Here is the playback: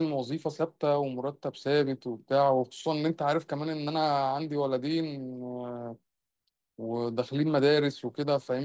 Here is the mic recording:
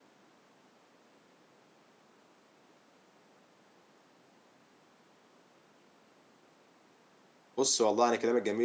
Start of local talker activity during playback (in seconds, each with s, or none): 7.6 s